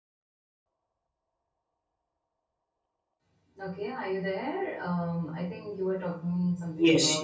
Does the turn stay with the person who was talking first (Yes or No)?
No